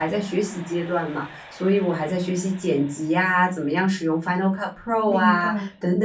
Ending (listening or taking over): listening